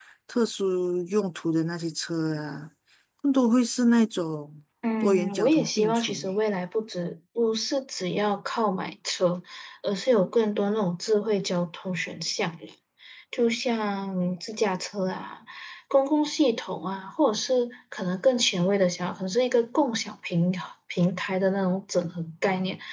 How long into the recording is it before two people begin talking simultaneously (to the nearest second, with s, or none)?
5 s